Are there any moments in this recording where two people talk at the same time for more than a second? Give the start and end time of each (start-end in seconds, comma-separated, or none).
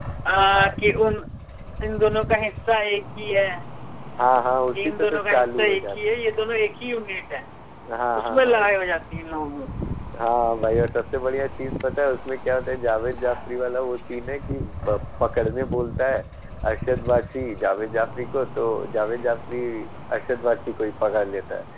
4.8-6.0